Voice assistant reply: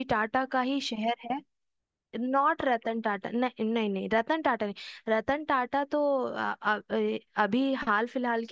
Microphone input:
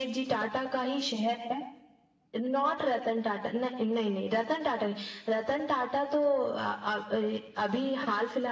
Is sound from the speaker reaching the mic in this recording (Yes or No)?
Yes